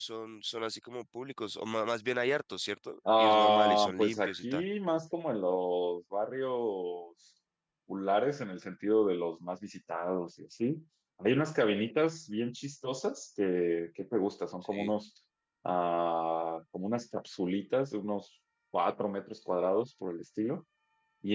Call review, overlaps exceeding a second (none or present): present